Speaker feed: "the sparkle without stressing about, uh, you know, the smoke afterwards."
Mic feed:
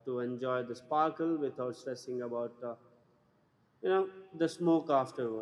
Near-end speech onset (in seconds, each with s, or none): none